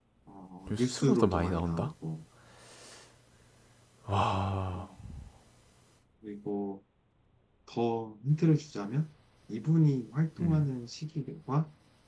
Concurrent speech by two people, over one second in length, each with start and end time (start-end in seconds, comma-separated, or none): 0.7-1.9